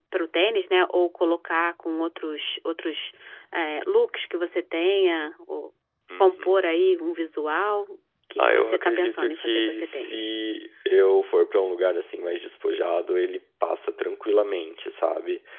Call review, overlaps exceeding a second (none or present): present